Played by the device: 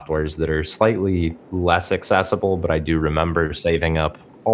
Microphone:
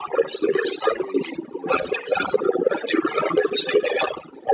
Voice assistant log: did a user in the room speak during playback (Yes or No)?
No